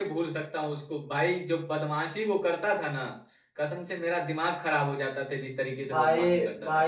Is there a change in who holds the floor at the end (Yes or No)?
Yes